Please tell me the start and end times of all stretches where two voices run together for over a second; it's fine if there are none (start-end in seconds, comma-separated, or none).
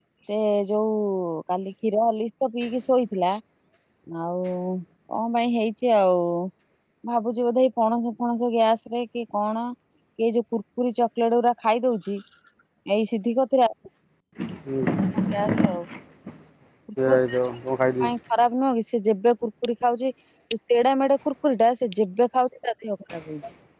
none